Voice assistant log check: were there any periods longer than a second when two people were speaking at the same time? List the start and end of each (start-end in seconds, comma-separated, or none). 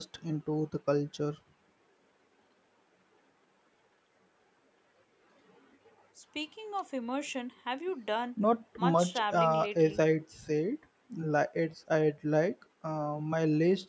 8.8-10.0